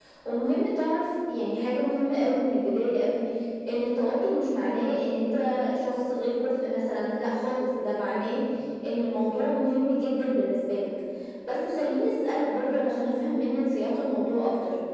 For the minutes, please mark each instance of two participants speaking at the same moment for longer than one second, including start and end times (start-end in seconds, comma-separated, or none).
none